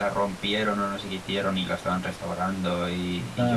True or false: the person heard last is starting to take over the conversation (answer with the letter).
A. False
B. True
A